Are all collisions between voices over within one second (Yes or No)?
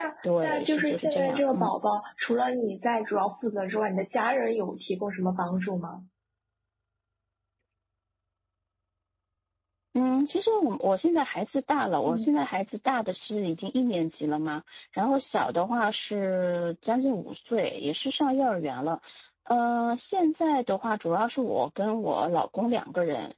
No